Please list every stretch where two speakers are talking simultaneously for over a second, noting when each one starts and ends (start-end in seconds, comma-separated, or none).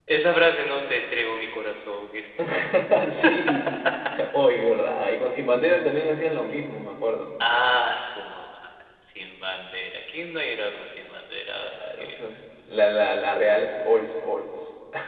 none